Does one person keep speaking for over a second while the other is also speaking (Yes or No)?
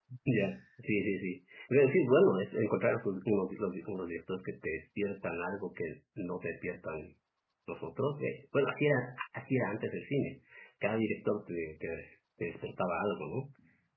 No